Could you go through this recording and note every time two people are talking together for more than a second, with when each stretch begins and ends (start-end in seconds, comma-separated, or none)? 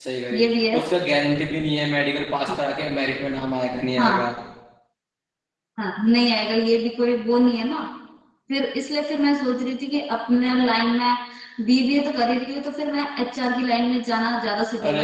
none